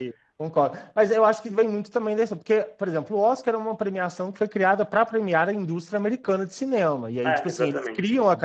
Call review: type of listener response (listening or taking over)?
listening